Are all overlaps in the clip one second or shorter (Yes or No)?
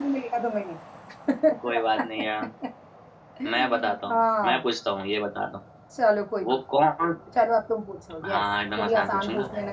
No